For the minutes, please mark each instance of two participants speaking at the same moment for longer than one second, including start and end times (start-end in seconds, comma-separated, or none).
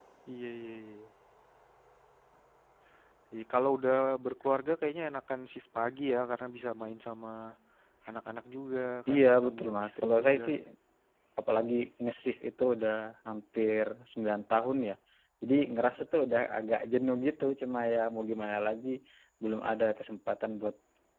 9.1-10.4